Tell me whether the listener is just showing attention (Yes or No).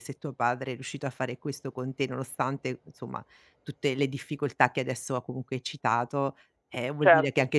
Yes